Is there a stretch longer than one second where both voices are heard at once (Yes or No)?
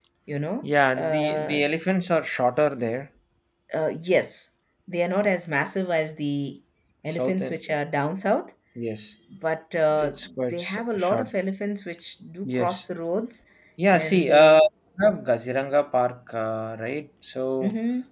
Yes